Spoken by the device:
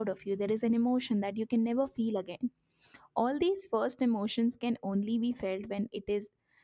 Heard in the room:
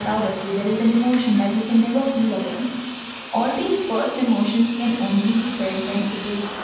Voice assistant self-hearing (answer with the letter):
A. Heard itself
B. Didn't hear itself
A